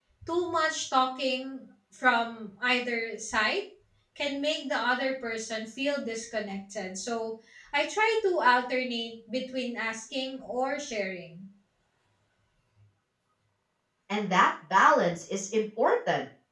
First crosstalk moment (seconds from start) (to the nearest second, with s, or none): none